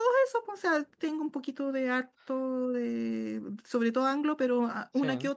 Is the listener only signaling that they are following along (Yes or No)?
Yes